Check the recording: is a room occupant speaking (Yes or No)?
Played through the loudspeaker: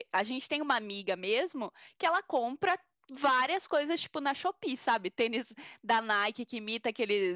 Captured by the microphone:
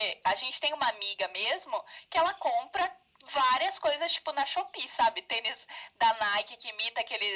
No